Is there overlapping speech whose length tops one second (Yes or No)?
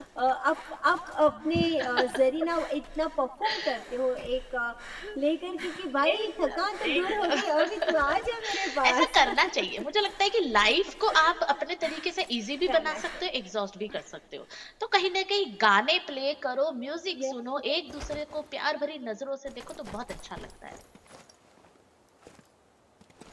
Yes